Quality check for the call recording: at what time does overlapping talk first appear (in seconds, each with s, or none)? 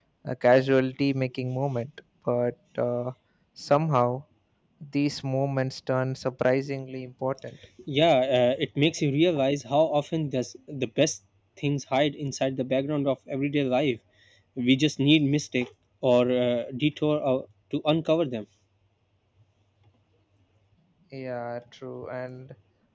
none